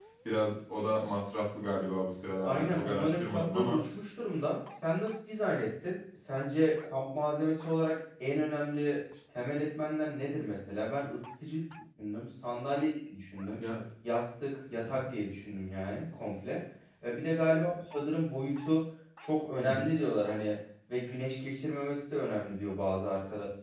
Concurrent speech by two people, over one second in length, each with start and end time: 2.4-3.8

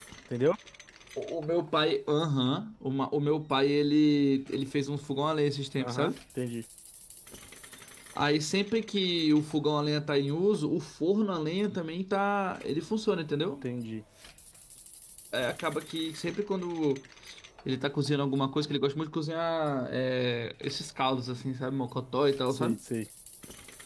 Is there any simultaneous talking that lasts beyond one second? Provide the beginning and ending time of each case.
none

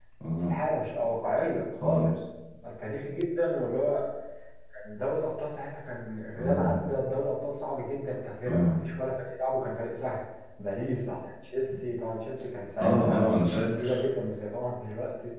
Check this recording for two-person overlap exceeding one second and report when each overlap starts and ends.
none

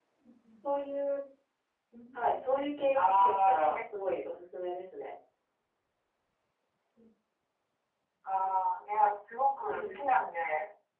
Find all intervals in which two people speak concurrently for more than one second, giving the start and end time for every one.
2.1-4.0

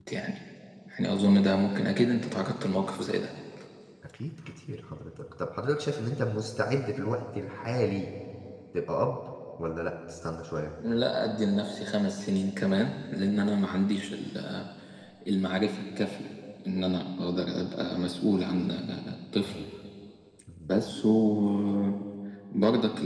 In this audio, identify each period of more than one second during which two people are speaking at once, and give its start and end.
none

